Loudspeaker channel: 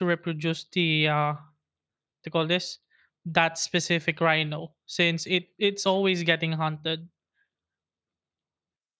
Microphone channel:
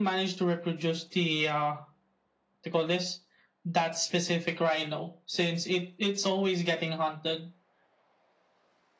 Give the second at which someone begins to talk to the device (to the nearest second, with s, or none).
none